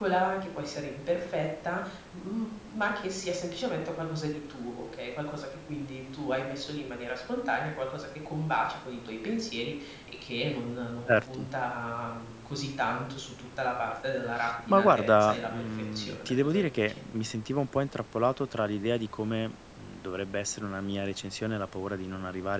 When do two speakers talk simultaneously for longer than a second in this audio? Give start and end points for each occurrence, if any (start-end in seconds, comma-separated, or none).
14.7-17.0